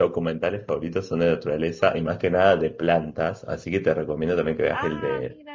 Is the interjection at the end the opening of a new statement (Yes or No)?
No